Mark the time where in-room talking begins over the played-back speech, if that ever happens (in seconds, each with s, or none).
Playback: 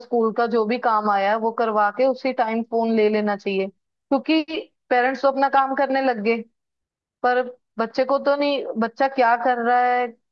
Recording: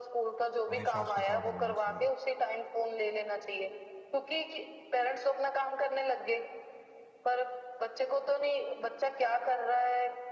0.7 s